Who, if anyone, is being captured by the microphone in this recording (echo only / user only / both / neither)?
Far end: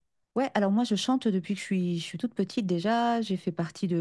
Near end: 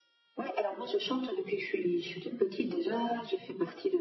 echo only